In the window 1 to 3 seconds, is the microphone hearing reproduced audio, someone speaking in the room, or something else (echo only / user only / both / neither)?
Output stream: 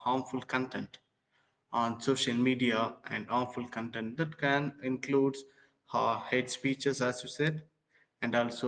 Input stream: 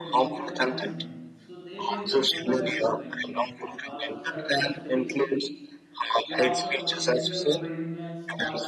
both